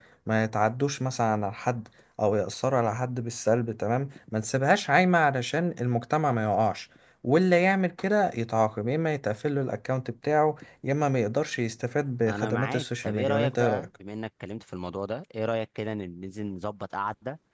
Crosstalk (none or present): present